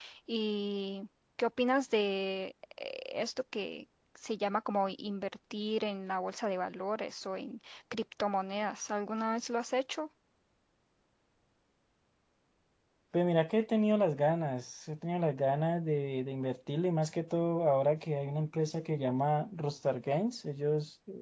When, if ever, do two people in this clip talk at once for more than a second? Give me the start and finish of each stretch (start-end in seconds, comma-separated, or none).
none